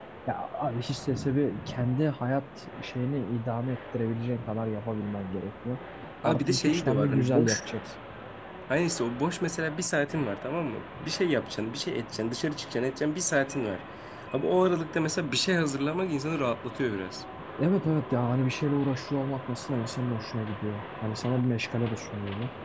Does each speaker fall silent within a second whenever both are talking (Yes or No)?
No